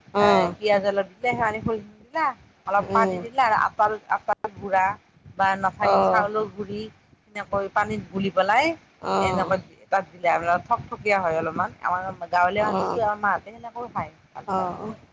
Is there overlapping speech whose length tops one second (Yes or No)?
No